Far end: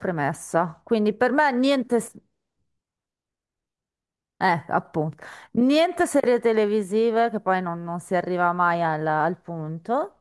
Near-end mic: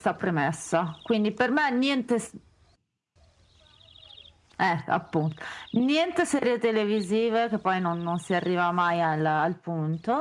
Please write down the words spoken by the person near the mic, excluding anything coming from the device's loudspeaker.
none

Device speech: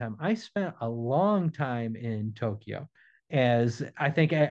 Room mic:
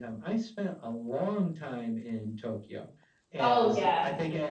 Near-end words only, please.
Oh yeah,

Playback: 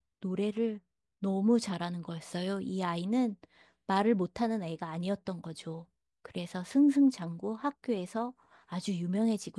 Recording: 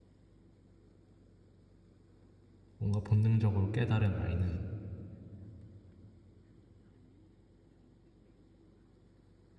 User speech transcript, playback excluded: 뭔가 본능적으로 깨달은 아이는

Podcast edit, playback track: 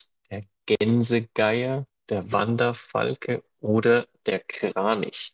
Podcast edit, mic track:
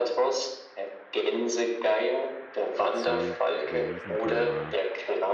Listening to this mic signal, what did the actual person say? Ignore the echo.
C, der Riesenkalmar

